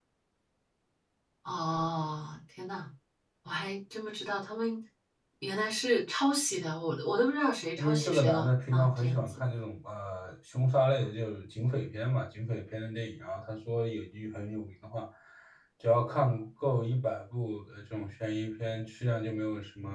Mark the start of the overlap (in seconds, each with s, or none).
7.8 s